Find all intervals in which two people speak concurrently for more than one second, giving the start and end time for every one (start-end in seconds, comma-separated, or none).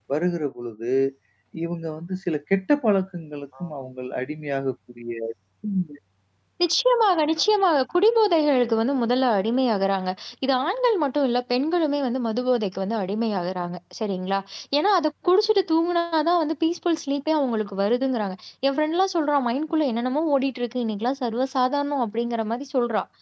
none